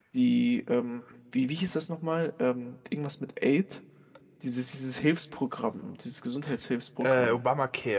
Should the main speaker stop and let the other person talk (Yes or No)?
Yes